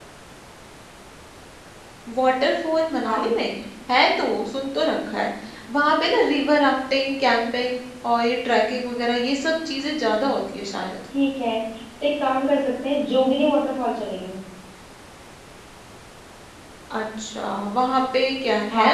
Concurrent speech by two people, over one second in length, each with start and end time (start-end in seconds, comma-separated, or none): none